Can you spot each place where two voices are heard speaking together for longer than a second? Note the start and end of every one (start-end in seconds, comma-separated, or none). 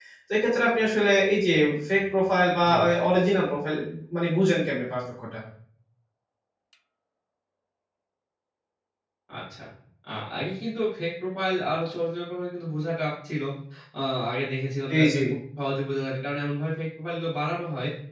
none